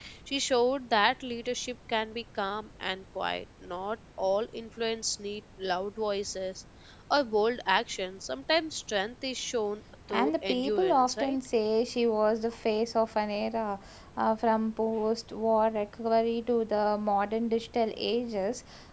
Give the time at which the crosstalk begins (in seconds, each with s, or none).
10.1 s